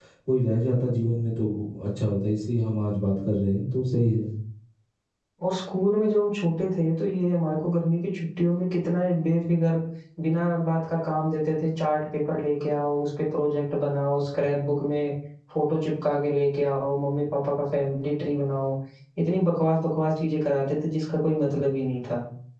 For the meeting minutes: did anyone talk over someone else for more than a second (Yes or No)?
No